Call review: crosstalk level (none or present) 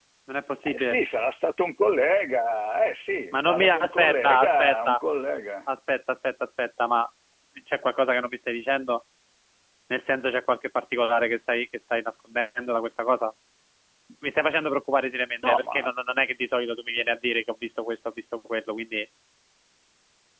present